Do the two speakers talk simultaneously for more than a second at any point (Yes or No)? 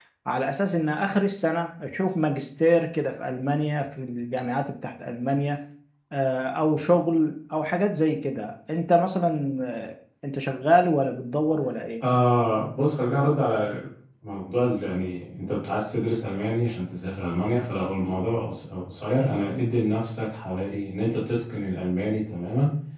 No